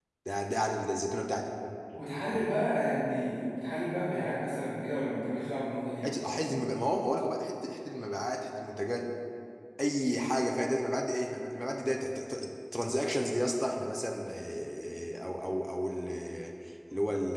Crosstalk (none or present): none